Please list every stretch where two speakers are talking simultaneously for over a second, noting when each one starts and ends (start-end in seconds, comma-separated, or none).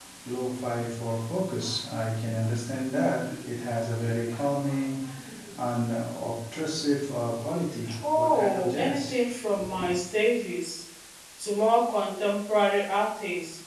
8.0-9.2